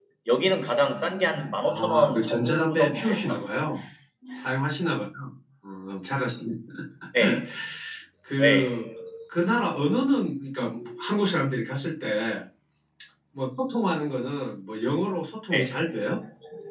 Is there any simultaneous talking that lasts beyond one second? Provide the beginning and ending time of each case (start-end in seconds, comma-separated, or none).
1.6-3.7